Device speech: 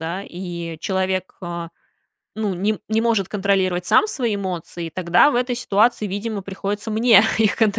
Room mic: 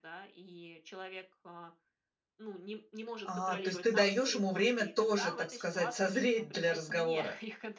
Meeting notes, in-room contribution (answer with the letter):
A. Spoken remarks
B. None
A